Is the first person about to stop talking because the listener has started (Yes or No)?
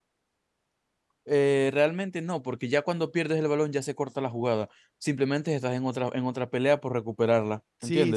Yes